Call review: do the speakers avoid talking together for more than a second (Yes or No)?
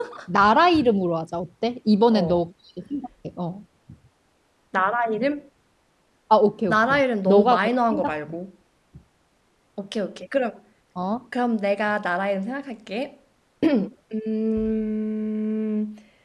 No